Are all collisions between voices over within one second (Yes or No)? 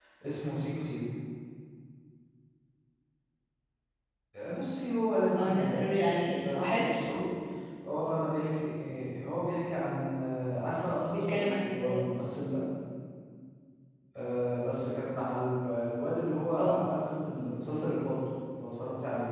No